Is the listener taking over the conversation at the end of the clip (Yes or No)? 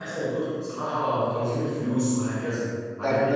Yes